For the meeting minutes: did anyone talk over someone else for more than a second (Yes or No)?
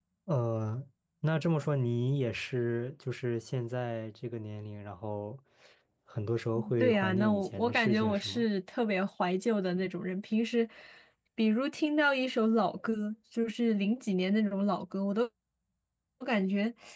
Yes